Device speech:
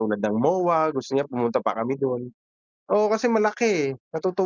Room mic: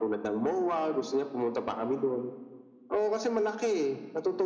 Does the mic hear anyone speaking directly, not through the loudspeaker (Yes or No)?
No